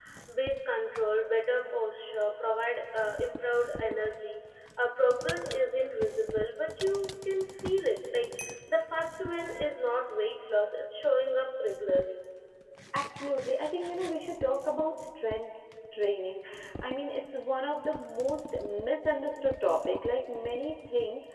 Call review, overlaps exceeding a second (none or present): none